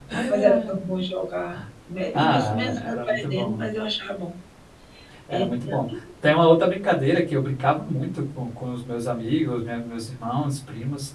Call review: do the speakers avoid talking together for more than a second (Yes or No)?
No